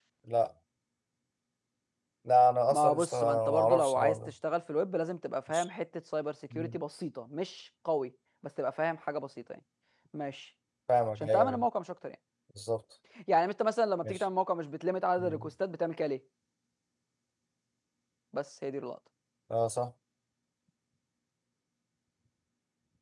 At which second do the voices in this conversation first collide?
2.7 s

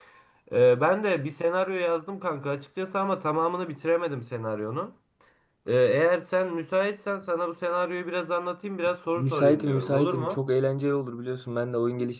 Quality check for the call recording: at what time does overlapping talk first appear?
9.2 s

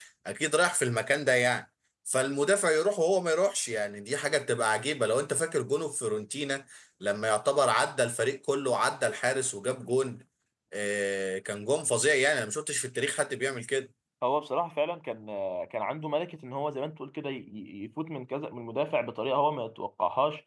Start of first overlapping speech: none

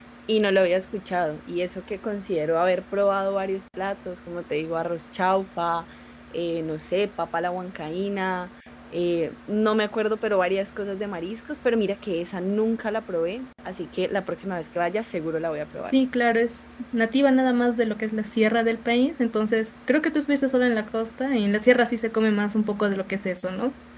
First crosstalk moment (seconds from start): none

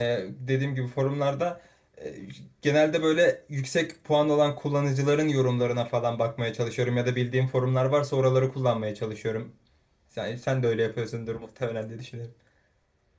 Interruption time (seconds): none

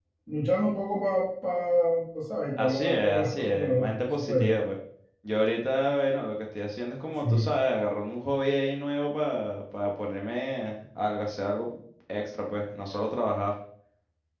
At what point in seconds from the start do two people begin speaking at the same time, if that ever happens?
2.6 s

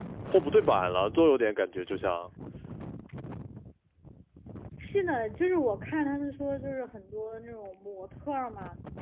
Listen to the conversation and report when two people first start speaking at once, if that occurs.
none

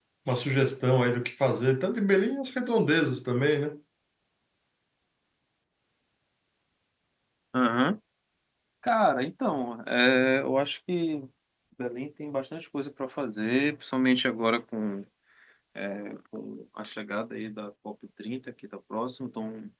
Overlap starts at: none

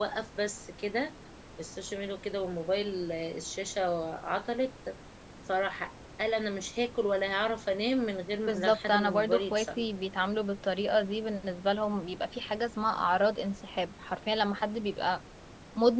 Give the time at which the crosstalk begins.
8.4 s

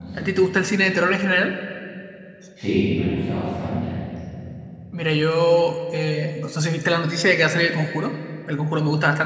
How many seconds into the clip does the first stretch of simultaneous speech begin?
none

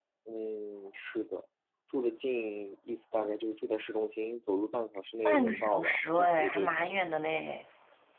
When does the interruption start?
5.2 s

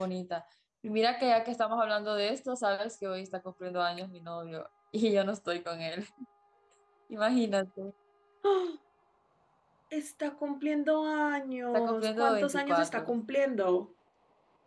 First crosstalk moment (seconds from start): 11.7 s

